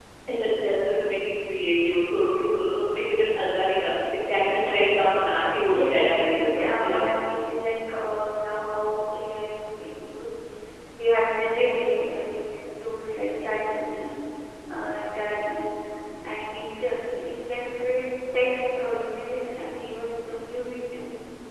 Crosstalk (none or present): present